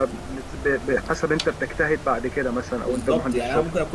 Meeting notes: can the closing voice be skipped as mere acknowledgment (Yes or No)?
No